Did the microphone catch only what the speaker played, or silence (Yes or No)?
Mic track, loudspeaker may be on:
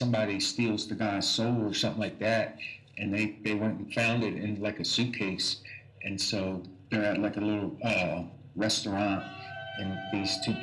Yes